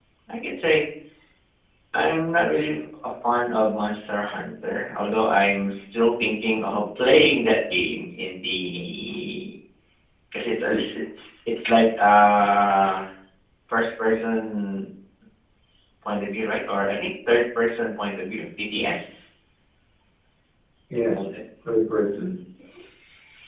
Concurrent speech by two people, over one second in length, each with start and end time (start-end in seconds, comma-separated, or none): none